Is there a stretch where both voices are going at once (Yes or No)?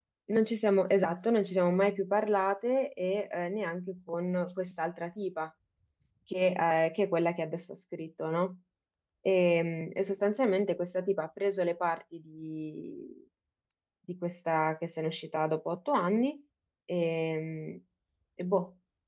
No